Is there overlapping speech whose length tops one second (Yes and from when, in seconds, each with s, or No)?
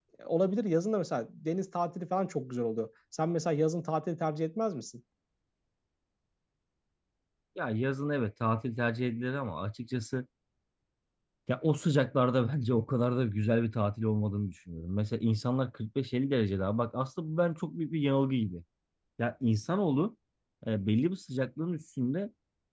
No